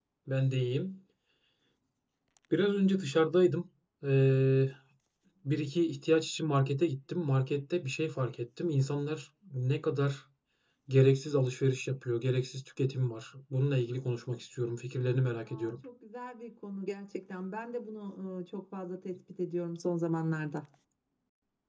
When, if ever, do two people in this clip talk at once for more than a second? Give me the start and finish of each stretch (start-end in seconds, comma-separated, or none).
none